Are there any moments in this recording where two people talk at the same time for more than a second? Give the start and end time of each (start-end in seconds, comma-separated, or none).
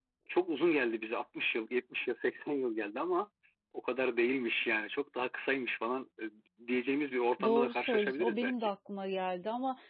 7.4-8.7